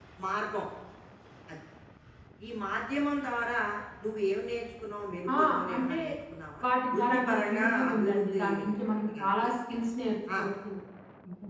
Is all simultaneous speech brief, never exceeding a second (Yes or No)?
No